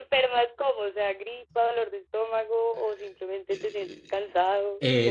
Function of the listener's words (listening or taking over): taking over